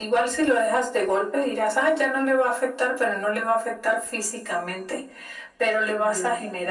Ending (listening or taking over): listening